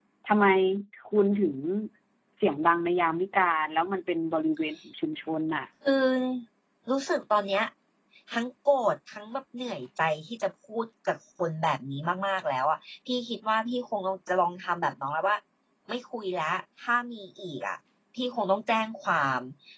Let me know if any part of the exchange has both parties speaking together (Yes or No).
No